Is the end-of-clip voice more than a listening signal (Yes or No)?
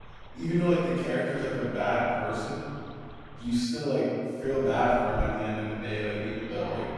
No